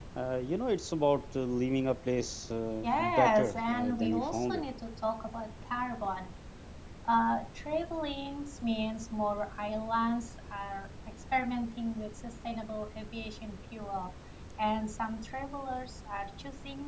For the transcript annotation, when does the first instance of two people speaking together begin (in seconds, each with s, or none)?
2.8 s